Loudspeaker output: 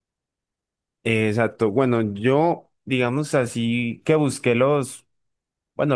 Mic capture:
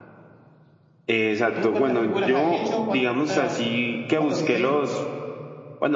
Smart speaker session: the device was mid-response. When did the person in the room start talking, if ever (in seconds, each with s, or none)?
1.4 s